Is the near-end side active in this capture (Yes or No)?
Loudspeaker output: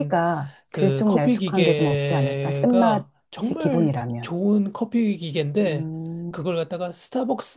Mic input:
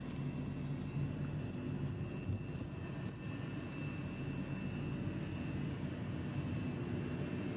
No